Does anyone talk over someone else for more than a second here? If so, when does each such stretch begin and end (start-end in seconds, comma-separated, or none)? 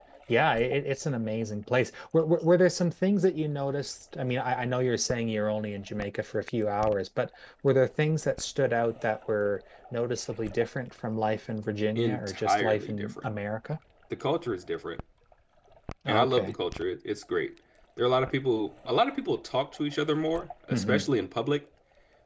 12.0-13.2